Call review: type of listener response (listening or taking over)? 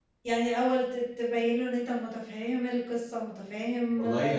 taking over